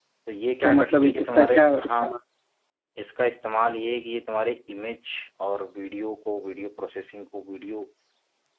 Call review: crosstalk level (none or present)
present